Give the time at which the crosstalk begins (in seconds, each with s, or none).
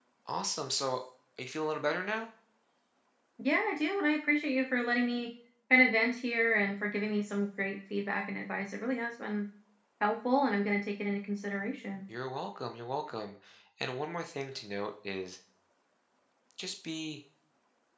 none